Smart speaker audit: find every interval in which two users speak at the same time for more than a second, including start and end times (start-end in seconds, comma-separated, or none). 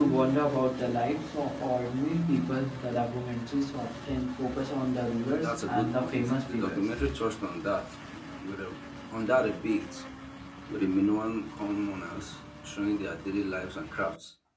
5.4-6.8